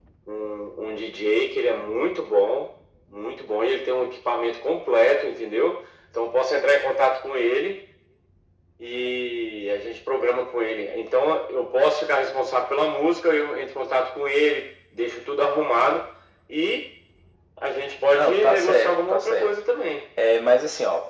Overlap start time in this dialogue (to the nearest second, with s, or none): 18 s